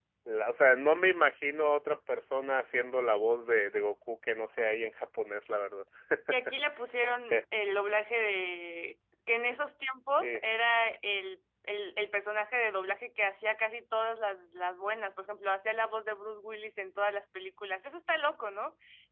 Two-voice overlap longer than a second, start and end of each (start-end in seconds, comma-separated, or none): none